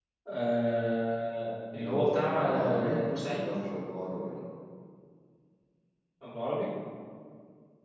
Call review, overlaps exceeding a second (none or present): present